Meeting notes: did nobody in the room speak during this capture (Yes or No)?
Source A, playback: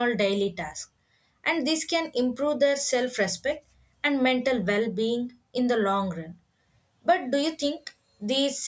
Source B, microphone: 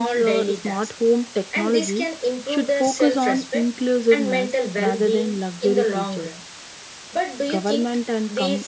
No